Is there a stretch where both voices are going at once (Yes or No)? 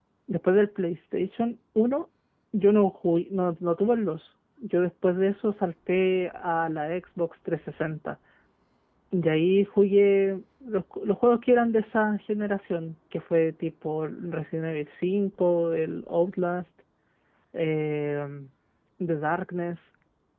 No